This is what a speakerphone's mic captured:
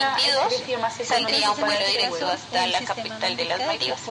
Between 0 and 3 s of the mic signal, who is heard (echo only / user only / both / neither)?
both